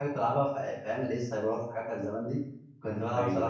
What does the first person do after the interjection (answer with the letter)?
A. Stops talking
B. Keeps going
B